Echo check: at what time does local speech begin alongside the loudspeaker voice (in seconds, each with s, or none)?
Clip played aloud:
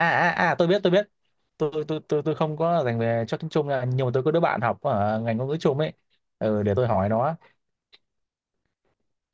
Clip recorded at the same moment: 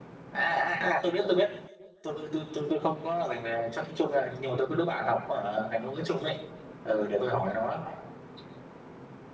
none